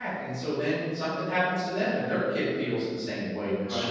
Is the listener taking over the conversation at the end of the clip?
Yes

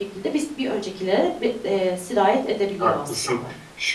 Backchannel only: No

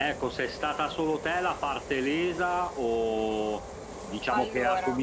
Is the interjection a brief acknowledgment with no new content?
Yes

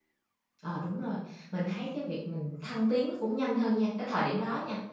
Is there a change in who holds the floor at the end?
No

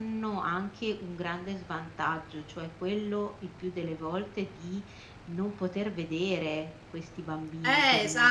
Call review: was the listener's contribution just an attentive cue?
No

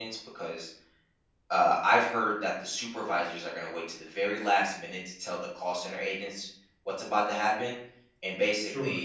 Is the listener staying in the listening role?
Yes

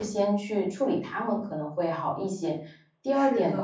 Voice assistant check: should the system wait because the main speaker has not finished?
Yes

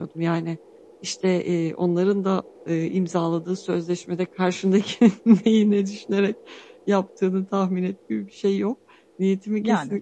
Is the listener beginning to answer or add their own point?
No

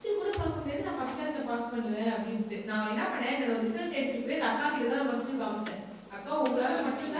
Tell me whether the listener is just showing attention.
Yes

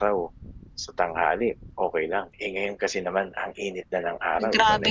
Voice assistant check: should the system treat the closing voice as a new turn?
Yes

